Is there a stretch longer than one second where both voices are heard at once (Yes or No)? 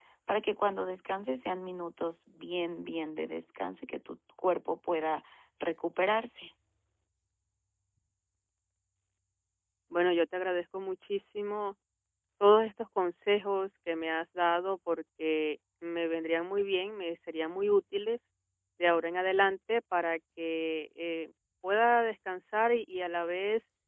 No